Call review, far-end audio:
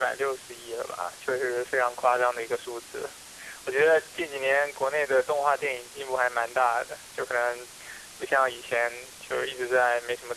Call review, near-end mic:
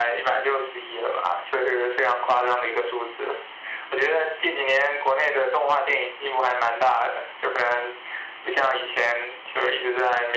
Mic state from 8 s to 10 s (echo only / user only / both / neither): echo only